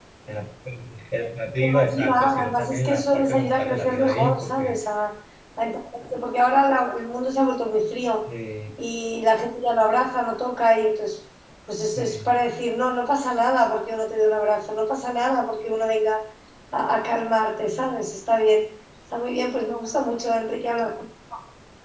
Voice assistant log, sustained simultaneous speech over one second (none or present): present